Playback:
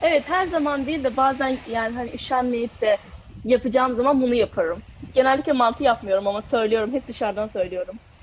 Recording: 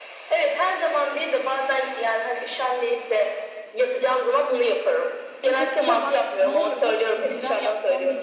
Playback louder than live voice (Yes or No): Yes